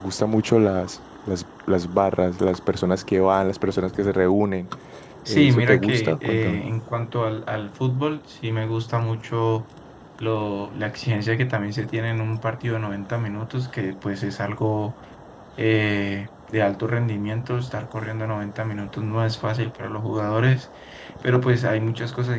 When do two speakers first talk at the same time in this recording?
5.3 s

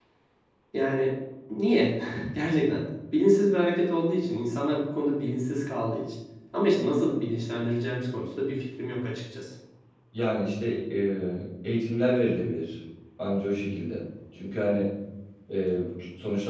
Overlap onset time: none

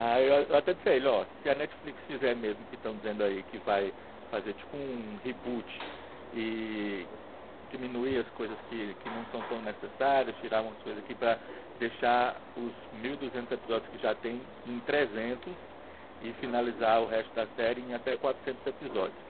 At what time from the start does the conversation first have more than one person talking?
none

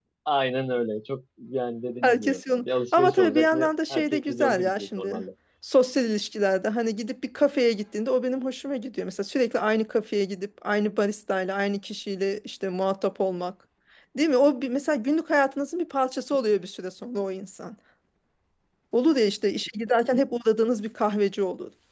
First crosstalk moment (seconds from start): 2.0 s

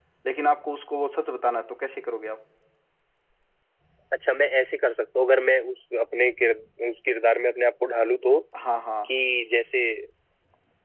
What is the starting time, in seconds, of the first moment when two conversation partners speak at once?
none

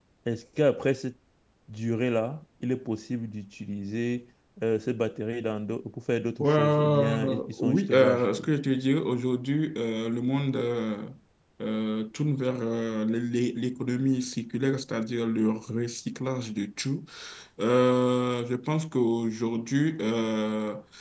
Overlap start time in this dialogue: 6.4 s

